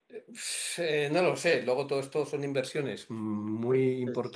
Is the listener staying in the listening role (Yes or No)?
Yes